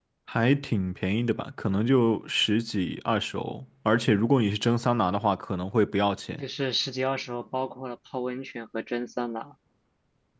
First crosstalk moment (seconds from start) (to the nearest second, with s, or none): none